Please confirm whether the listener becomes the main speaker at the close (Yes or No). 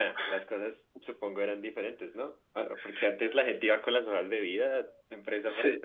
Yes